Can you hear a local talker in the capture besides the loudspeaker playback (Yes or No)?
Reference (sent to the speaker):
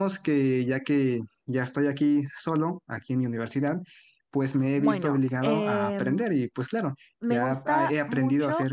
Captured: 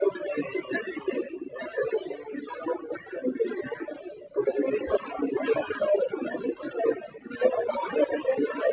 No